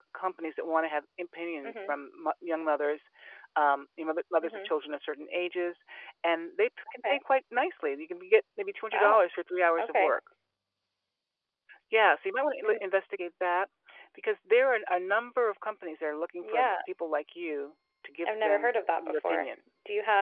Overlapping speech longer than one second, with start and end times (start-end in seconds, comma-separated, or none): 18.2-19.5